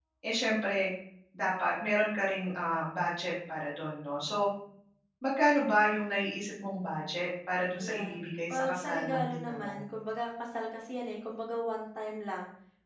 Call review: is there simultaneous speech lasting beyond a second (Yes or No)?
Yes